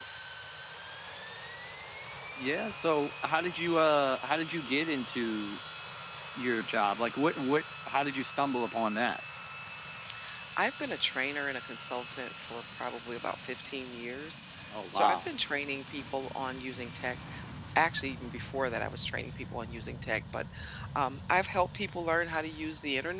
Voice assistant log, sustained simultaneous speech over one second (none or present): none